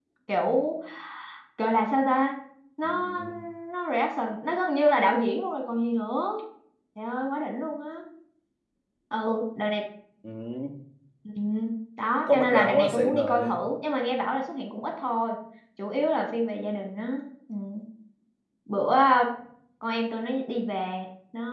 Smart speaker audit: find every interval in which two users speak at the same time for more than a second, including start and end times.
12.3-13.6

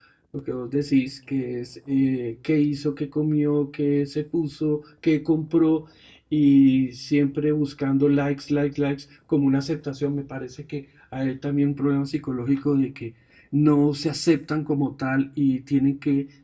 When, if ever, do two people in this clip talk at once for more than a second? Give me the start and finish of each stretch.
none

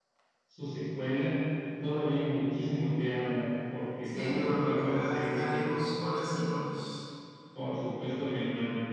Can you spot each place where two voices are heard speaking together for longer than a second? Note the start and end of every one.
4.2-5.8

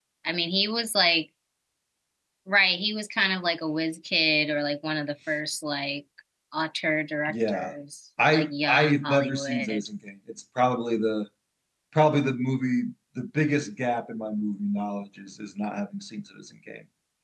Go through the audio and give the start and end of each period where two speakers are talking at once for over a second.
8.3-9.9

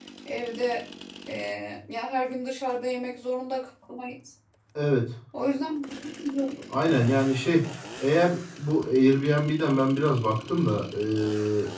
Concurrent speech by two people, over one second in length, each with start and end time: none

